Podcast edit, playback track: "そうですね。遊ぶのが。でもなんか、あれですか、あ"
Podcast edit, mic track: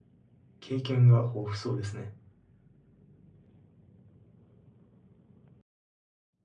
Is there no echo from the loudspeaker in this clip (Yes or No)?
Yes